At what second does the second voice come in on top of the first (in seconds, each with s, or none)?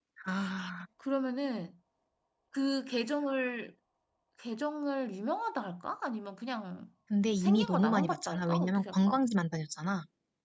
7.4 s